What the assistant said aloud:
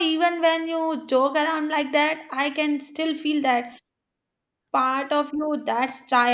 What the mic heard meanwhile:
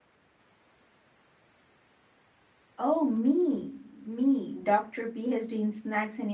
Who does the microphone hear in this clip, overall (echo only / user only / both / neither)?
user only